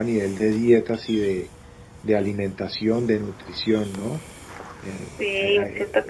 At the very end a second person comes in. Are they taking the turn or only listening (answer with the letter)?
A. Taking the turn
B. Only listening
A